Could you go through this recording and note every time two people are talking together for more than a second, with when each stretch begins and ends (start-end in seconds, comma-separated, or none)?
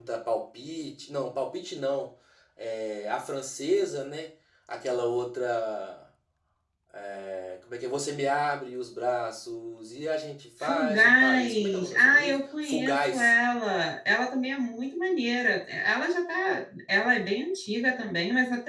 10.6-13.3